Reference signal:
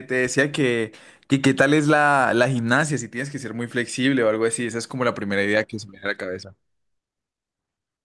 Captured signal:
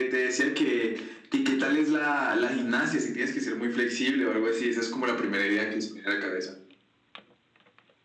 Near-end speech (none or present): none